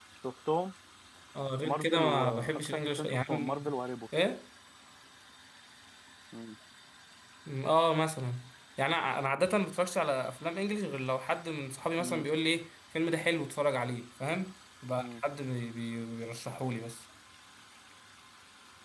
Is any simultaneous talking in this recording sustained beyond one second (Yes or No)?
Yes